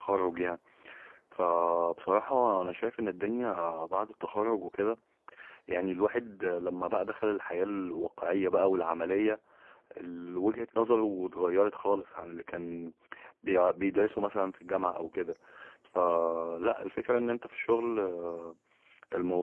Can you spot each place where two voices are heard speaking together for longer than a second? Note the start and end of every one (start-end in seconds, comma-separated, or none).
none